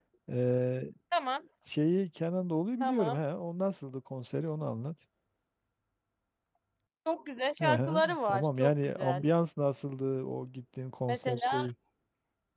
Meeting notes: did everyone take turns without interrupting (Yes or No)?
No